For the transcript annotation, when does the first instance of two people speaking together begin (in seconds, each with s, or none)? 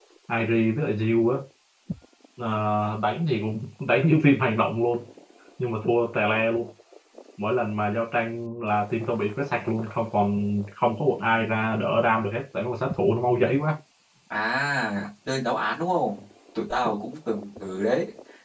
none